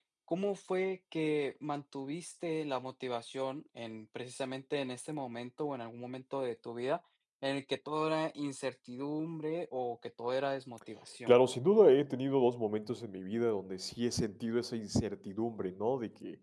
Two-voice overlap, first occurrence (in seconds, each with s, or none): none